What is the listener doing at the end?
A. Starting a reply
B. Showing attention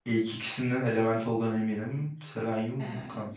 B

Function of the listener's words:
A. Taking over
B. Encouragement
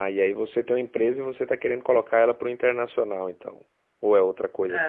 A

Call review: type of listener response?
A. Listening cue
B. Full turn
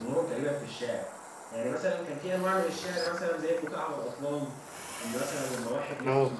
A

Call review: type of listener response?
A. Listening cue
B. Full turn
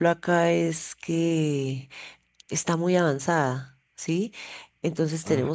A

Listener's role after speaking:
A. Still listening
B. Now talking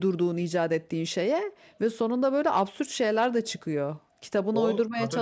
B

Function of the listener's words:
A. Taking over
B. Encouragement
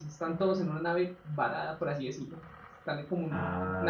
B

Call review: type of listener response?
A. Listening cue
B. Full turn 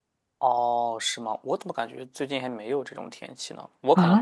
B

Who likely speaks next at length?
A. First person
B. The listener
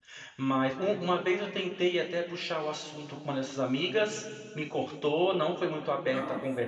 A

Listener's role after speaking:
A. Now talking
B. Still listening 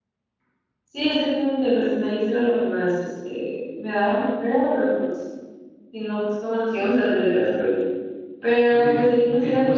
A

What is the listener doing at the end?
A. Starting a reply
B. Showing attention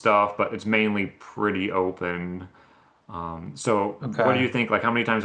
B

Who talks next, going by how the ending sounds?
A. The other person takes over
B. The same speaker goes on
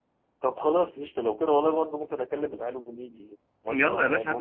A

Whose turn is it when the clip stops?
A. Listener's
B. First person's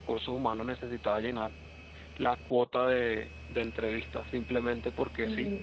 A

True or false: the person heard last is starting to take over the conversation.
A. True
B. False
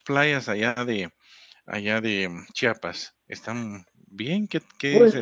A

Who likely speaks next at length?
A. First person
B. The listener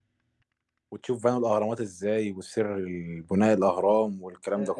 B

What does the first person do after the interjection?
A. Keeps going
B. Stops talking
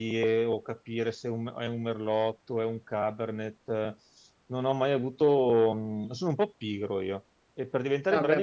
A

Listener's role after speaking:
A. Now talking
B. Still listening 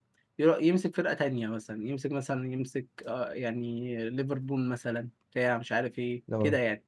B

